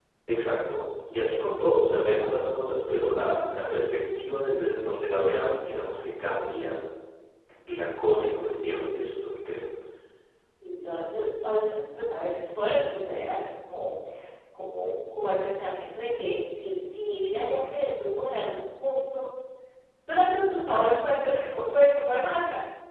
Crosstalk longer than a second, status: none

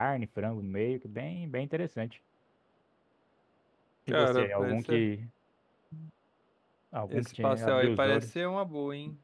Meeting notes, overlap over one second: present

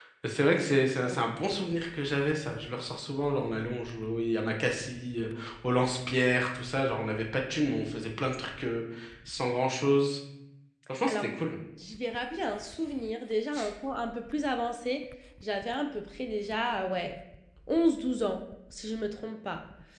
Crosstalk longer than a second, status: none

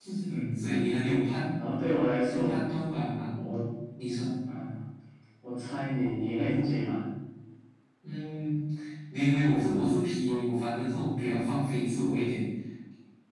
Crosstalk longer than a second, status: none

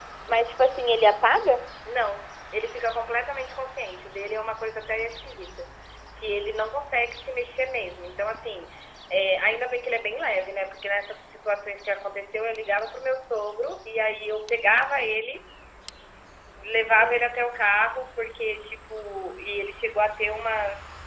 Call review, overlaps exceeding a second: none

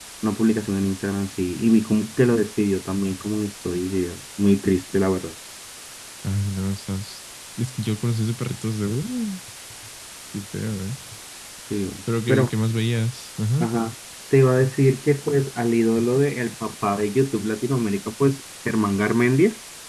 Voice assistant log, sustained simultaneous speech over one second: none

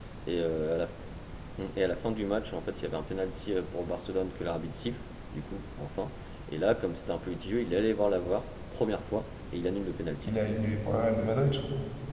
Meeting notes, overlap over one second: none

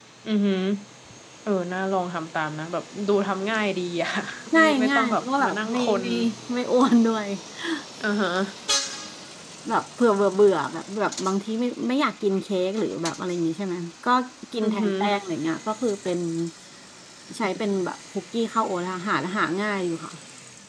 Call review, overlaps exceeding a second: present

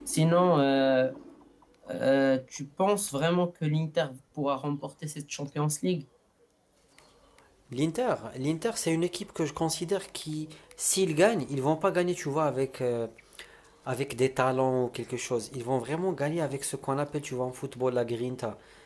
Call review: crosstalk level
none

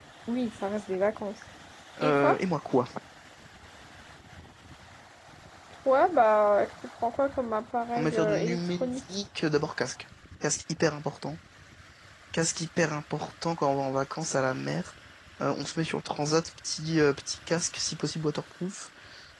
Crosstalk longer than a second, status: present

